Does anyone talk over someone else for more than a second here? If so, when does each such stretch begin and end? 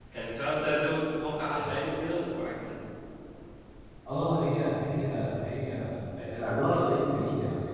none

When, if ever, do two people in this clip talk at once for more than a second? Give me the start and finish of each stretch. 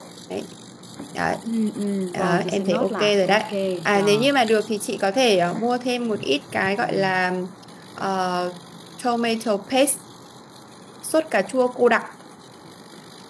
2.1-3.4

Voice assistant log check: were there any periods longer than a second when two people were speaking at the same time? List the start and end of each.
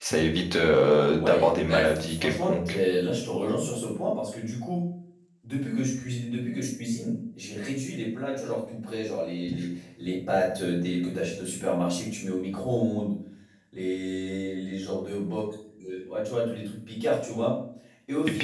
1.2-2.8

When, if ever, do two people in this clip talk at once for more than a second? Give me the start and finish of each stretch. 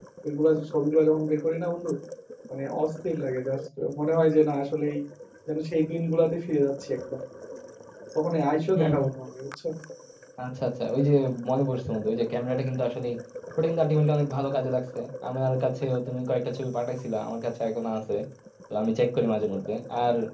none

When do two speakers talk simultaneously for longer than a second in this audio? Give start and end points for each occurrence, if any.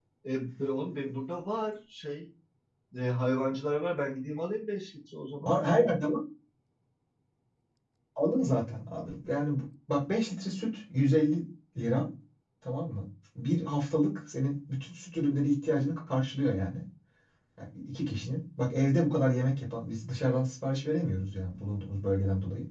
none

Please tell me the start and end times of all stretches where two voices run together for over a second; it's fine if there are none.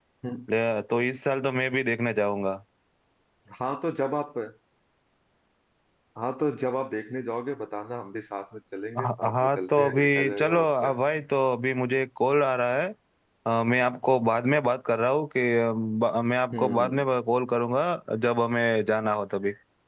9.0-10.9

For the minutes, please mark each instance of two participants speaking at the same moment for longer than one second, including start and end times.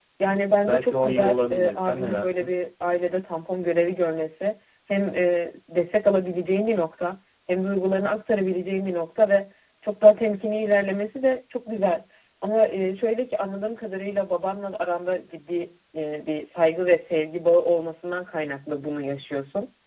0.7-2.5

